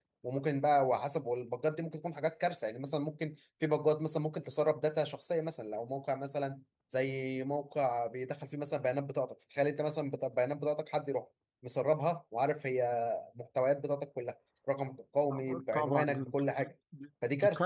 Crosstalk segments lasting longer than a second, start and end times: 15.3-16.7

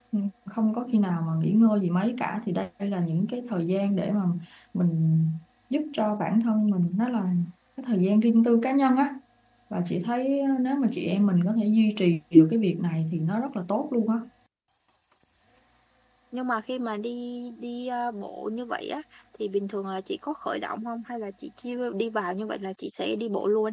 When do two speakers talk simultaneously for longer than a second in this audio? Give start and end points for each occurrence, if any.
none

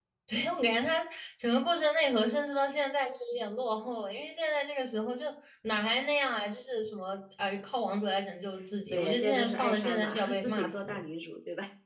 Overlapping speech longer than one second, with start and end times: 8.9-11.0

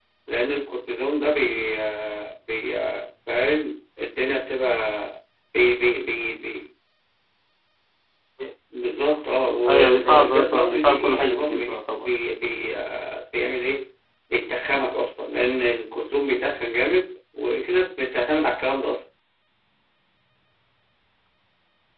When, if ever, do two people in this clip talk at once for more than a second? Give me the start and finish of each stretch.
9.7-12.1

